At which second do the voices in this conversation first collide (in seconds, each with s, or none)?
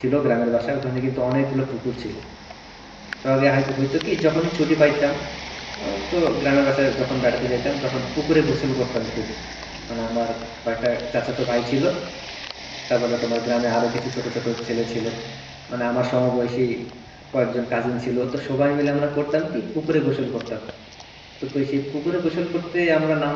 none